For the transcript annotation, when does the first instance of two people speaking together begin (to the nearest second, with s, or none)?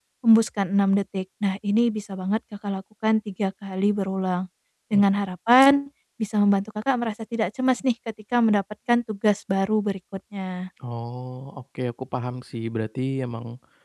none